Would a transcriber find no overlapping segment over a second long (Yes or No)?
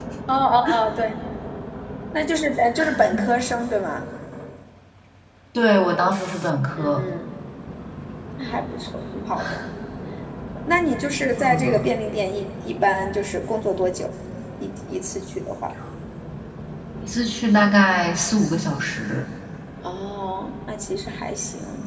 Yes